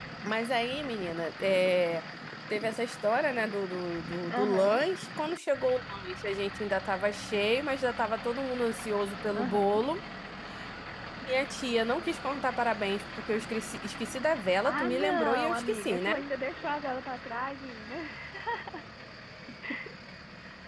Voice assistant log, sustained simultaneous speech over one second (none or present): present